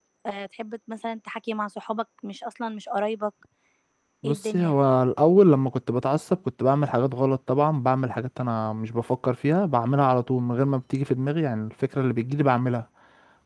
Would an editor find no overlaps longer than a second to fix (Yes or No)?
Yes